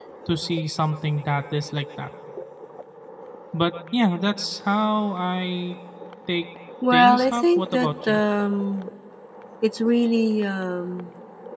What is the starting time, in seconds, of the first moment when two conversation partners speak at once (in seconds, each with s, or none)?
6.9 s